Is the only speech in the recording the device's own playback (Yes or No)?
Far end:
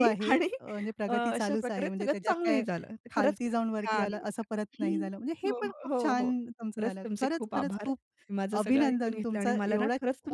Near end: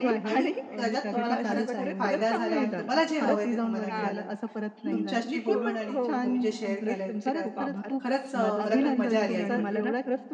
No